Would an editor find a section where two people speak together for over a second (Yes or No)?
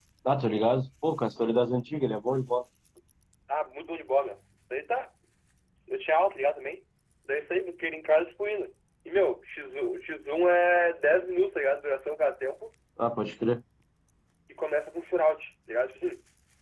No